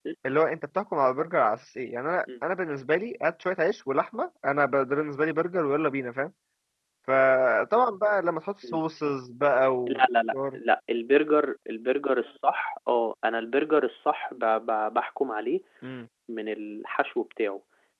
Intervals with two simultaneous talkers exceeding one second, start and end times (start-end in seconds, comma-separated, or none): none